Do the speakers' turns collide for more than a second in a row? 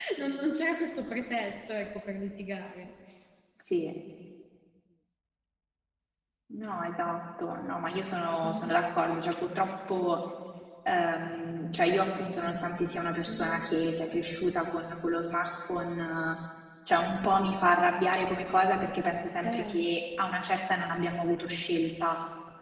No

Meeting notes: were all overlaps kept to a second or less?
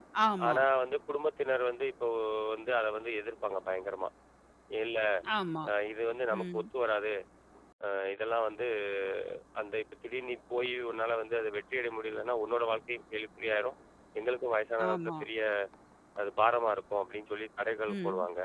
Yes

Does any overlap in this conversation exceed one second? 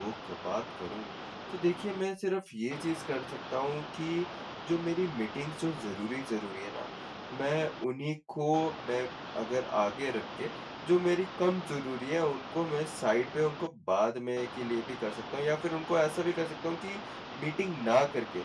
No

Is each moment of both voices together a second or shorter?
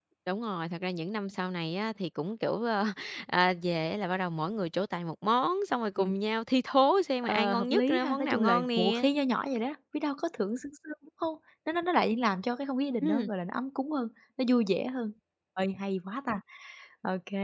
No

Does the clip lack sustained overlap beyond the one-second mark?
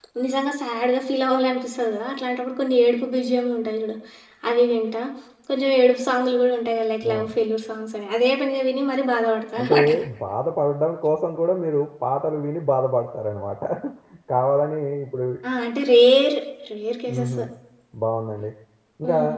Yes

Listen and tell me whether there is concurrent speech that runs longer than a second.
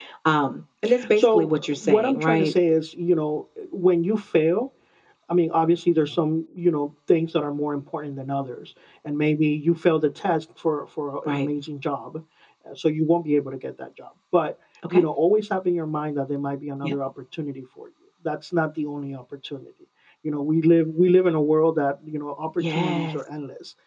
Yes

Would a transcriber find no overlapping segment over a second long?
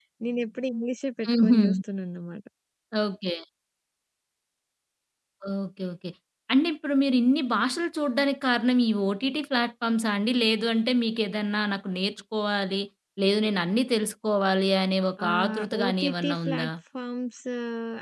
No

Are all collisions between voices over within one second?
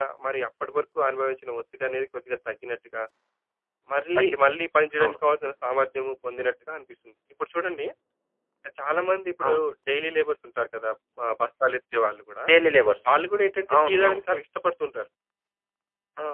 Yes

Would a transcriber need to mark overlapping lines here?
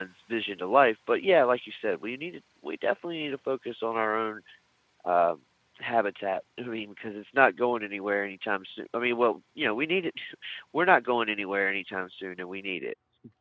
No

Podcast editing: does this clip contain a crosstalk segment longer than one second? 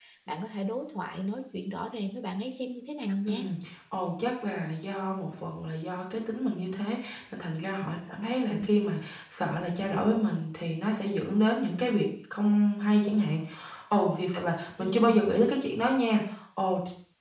No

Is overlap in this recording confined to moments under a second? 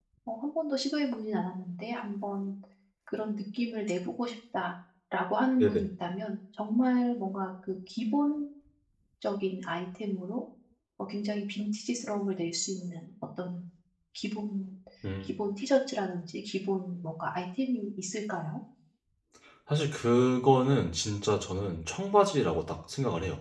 Yes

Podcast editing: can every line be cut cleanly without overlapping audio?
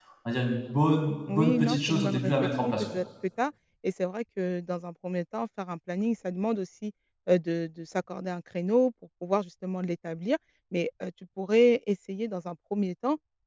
No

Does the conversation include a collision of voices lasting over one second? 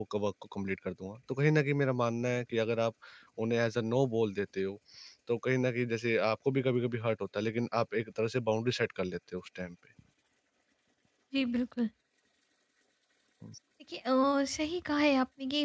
No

